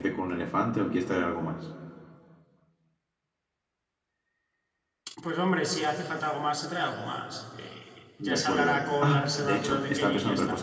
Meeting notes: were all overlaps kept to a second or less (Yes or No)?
No